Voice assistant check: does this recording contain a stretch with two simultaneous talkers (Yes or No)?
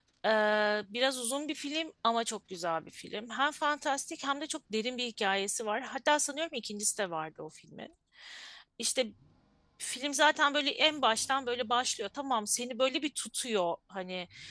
No